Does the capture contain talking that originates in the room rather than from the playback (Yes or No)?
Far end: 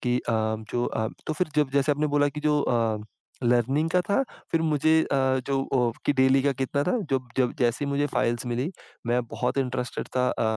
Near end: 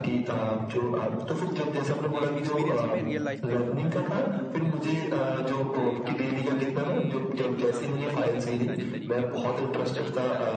Yes